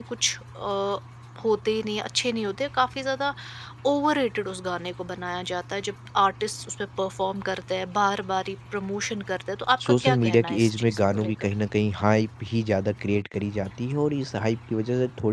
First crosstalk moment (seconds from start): 9.8 s

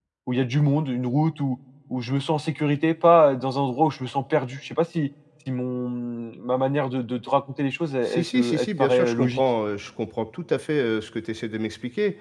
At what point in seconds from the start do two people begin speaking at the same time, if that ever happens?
8.0 s

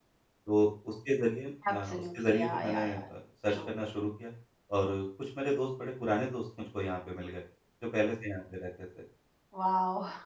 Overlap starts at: 1.6 s

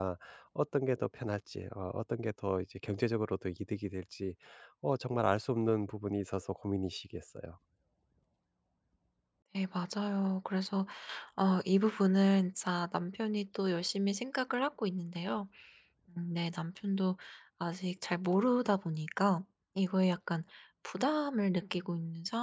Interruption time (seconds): none

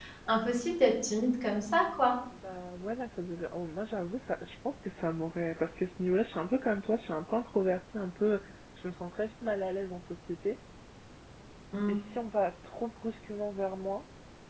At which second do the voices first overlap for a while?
none

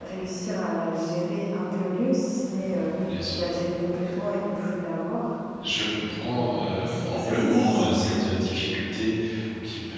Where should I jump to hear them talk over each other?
6.0 s

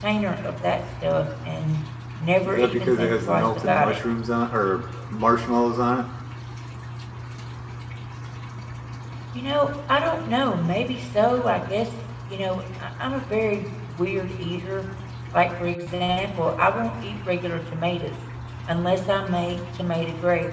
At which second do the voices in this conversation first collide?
2.4 s

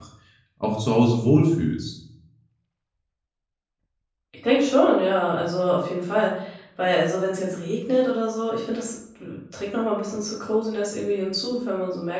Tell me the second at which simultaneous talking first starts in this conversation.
none

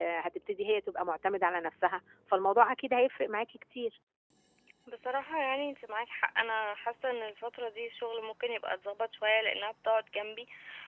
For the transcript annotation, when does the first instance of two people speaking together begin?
none

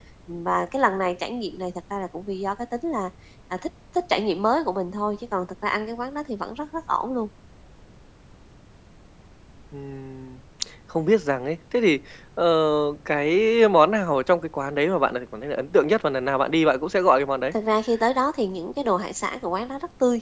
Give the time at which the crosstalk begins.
none

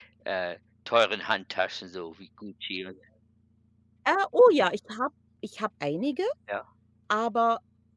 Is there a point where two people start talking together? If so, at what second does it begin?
none

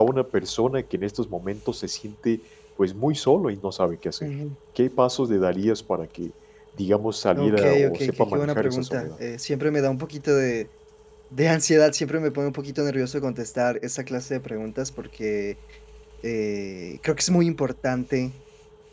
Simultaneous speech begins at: 7.3 s

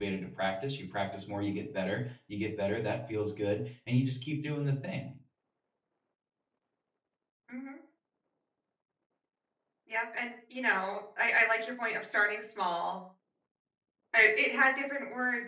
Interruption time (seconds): none

